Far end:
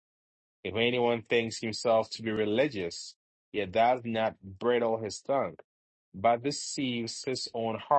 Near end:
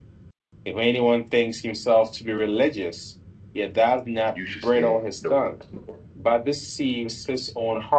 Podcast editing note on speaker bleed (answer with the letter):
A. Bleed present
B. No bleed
A